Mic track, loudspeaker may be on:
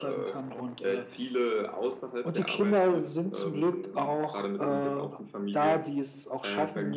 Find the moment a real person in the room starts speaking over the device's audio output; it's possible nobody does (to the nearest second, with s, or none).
none